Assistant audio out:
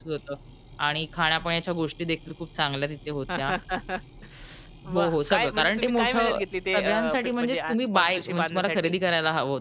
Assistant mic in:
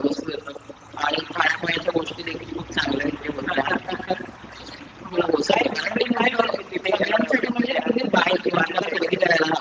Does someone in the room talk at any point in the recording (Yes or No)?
No